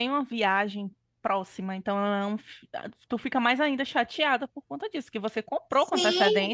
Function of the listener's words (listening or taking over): taking over